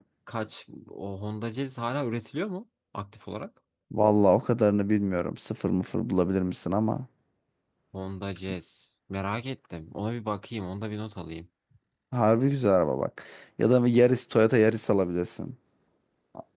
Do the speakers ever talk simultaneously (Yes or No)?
No